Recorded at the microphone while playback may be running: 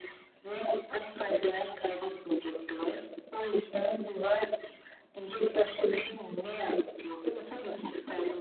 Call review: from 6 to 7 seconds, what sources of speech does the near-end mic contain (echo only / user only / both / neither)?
echo only